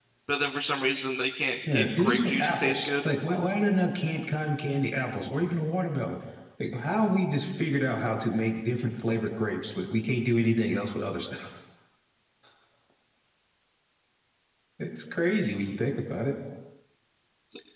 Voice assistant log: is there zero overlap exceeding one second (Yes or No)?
No